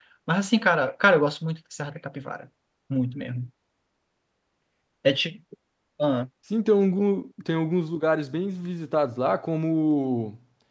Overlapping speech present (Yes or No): No